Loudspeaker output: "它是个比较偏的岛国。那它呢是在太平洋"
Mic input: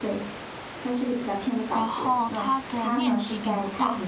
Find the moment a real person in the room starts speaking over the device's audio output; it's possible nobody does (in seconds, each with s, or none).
1.7 s